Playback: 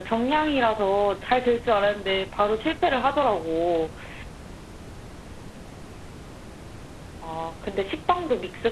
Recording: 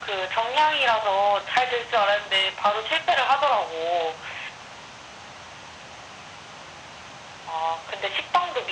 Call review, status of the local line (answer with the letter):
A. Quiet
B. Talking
A